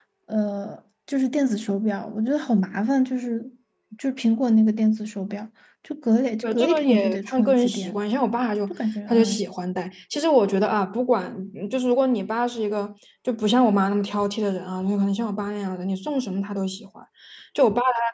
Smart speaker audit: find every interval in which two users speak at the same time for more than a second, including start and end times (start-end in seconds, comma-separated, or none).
6.4-8.0